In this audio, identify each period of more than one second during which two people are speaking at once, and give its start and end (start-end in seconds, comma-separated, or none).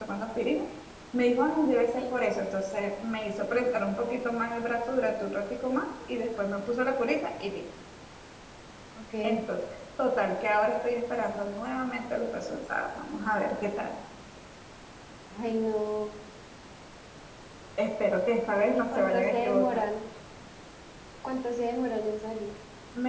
18.4-19.8